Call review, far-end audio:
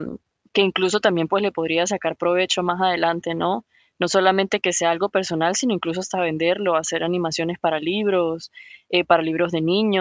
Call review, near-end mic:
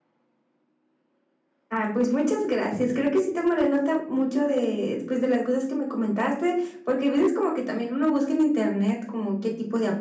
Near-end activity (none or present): present